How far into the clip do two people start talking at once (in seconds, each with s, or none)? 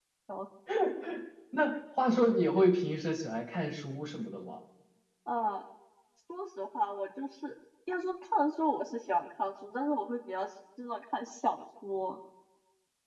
none